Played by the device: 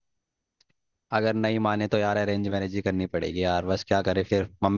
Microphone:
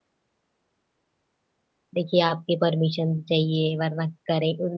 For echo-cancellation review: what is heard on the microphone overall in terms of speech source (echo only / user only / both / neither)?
user only